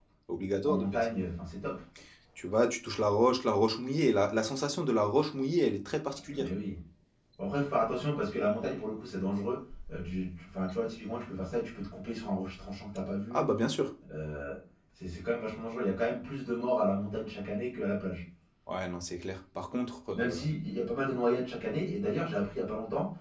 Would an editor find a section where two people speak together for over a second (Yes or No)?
No